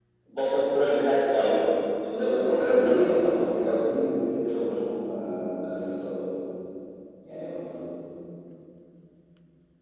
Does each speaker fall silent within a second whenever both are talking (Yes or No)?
No